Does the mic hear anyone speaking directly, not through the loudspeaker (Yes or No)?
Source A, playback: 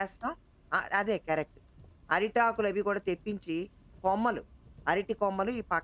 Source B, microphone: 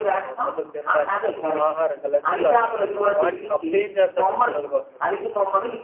Yes